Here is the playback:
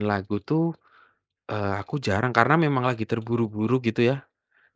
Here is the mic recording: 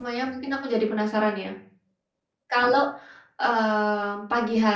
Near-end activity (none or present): present